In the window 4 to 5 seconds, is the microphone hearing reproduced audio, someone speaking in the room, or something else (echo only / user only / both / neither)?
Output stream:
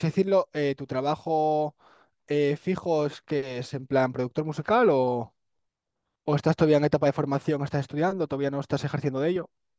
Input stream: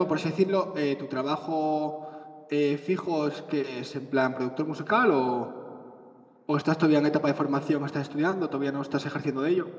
echo only